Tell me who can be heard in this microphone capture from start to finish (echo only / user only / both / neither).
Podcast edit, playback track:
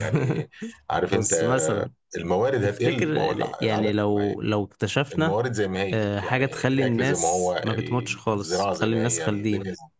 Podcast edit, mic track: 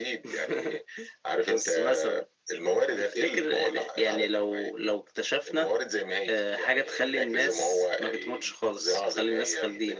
echo only